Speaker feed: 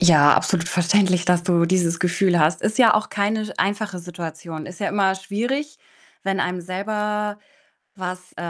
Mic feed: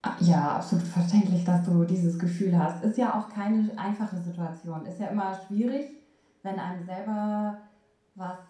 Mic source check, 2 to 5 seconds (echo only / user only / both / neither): echo only